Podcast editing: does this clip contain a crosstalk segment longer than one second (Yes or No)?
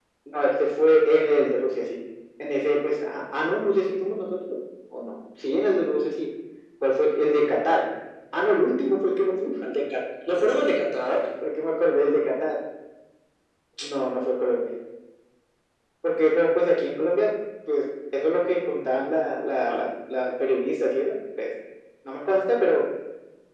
No